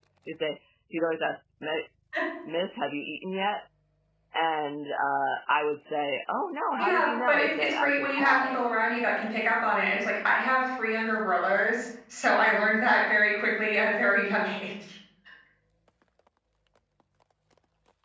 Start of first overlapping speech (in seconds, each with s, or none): 6.8 s